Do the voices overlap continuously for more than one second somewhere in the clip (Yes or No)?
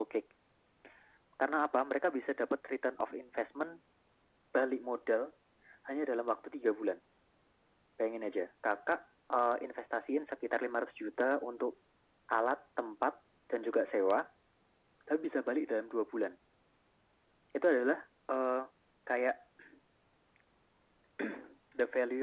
No